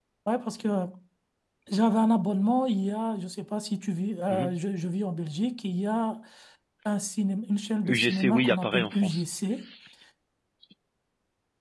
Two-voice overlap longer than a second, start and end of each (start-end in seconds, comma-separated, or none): 7.8-9.2